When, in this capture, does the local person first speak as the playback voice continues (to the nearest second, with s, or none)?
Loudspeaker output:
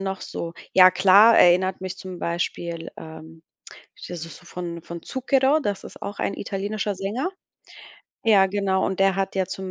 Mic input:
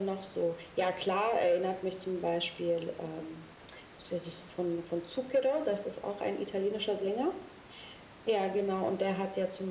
none